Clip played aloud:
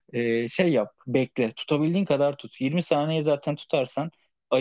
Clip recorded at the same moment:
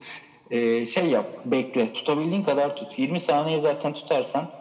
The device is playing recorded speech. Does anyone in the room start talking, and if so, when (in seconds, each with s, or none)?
none